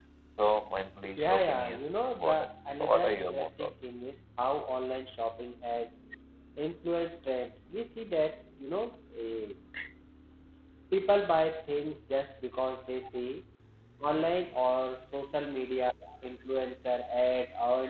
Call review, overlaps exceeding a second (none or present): present